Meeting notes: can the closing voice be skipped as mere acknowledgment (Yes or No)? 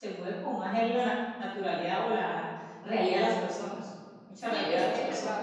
No